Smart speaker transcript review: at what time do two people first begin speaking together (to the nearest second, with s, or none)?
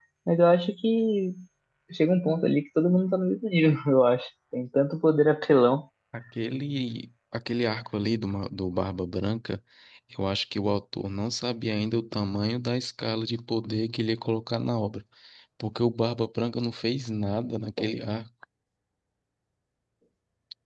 none